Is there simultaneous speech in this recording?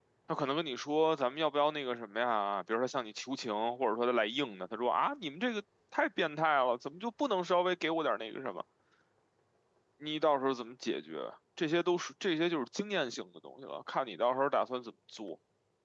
No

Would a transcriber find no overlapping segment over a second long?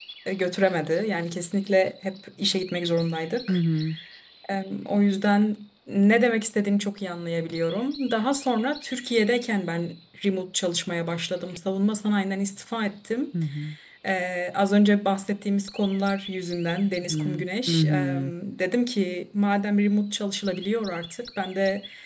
No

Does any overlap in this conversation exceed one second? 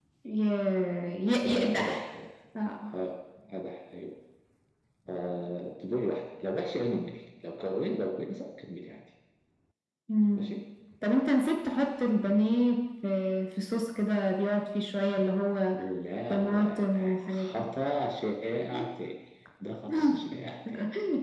Yes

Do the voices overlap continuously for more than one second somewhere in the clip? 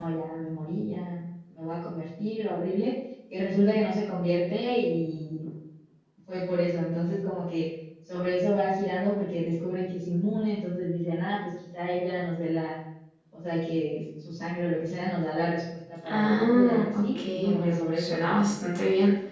Yes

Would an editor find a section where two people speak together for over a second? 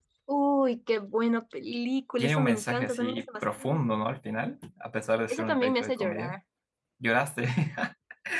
Yes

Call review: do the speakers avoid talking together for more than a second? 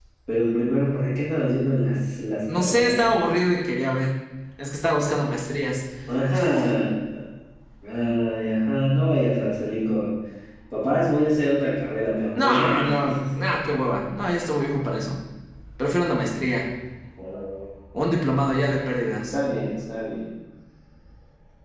Yes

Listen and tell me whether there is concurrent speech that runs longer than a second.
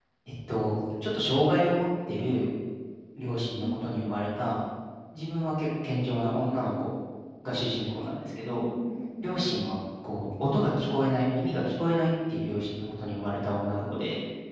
No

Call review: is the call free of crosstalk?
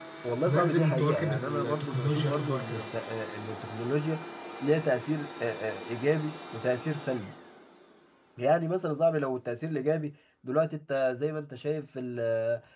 No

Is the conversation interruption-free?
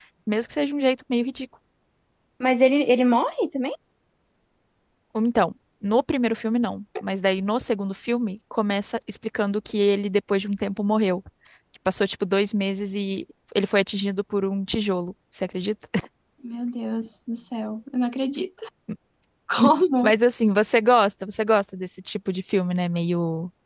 Yes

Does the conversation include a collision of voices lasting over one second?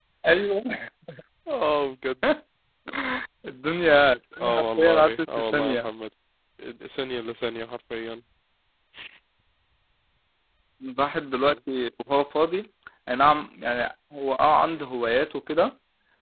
Yes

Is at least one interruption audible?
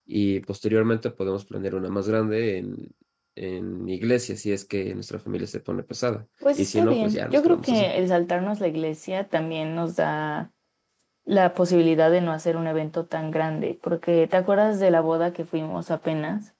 Yes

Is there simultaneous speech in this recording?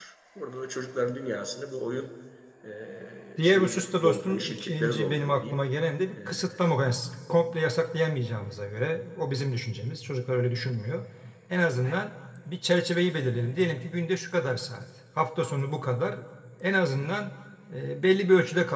Yes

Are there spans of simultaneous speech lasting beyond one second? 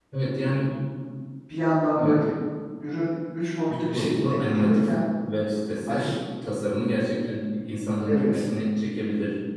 Yes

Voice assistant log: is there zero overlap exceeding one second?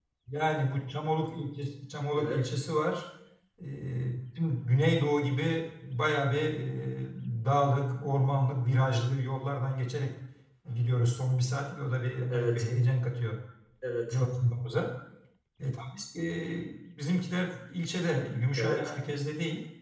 Yes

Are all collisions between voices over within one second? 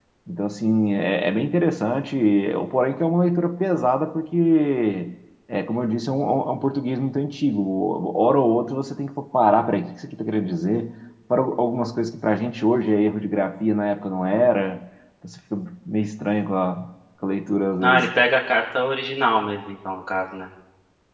Yes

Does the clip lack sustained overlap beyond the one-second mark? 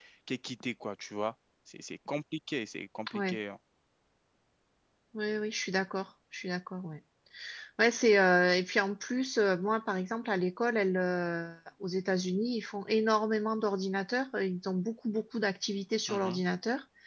Yes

